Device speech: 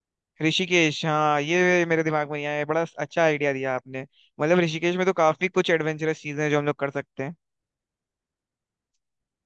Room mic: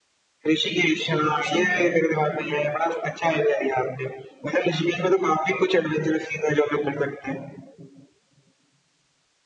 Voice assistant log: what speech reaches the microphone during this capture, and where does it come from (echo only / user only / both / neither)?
both